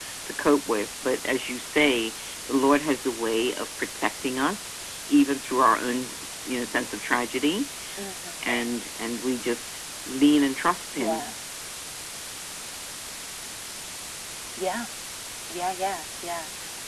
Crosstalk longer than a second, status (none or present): none